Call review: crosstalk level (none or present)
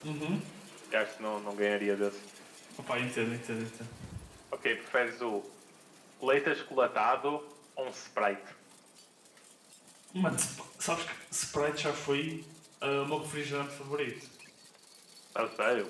none